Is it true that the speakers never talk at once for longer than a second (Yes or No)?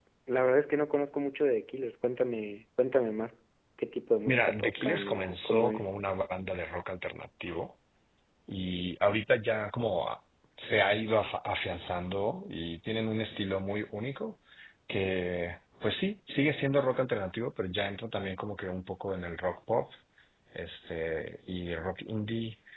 No